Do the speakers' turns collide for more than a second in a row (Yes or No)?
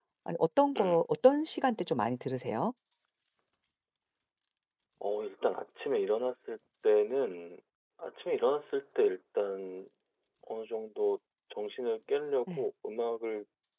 No